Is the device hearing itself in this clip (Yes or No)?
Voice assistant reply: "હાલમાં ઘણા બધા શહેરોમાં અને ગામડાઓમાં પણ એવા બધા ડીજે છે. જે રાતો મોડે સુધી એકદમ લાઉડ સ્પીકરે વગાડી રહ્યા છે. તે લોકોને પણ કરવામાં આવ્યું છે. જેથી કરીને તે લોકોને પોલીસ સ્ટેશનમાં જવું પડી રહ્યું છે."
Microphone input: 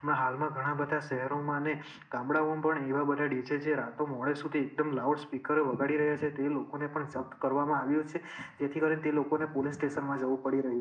Yes